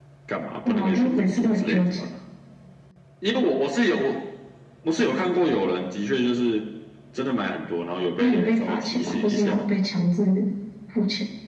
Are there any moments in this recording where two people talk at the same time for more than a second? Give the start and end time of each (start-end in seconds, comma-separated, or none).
0.7-2.0, 8.2-9.6